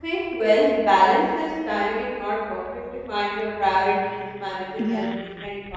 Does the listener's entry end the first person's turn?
No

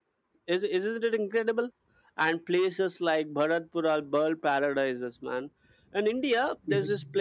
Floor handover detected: No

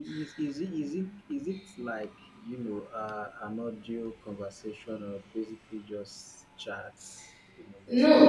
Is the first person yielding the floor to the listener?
Yes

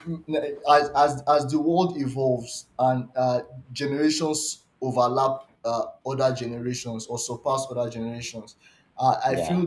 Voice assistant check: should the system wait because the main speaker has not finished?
Yes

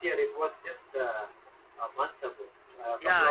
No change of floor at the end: No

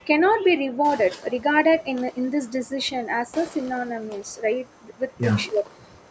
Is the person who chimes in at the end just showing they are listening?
Yes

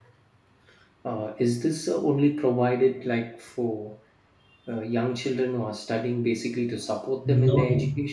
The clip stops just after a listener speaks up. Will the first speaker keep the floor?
No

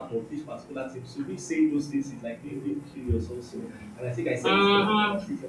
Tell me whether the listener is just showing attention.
Yes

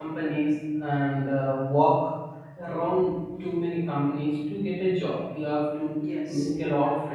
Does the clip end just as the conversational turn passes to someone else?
No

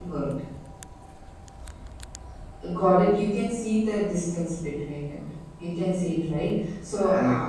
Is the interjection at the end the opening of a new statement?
No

